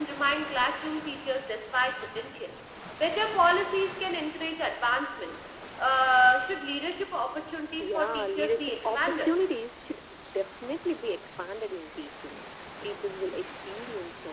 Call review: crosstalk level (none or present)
present